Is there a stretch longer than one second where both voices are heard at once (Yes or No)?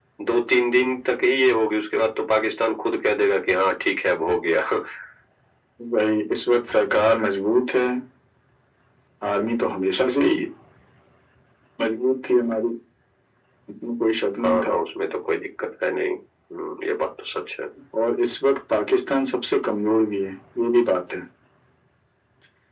No